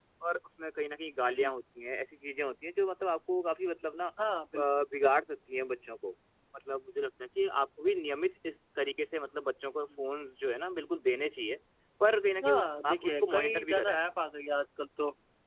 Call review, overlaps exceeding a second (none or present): present